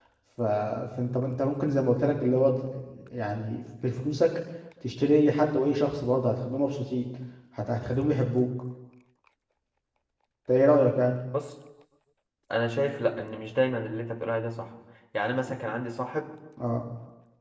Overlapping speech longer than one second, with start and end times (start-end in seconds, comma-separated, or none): none